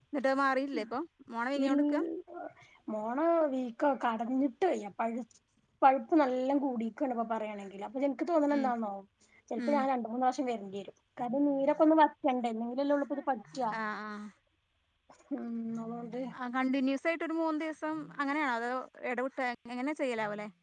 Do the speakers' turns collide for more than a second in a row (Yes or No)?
No